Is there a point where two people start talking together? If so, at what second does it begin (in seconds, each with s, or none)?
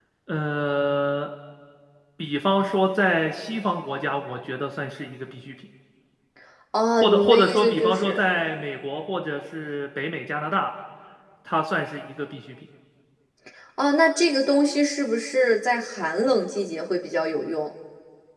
7.0 s